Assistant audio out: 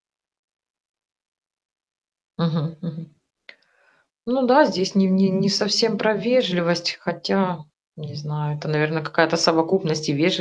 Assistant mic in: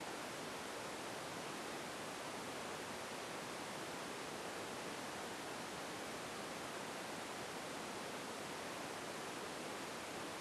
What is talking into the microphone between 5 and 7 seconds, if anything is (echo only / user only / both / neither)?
neither